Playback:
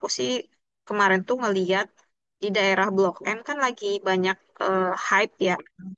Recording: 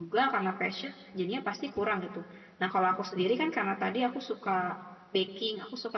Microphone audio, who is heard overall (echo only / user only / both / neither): user only